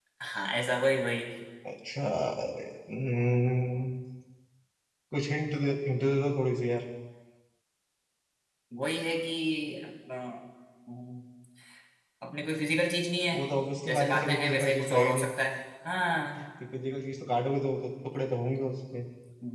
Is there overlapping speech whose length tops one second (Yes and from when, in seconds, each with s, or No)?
Yes, from 13.8 s